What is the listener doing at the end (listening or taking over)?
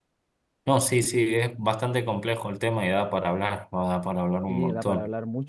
taking over